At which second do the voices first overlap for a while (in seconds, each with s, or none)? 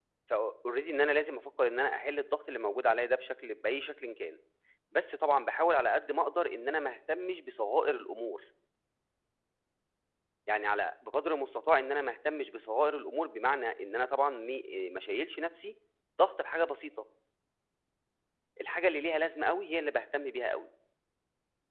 none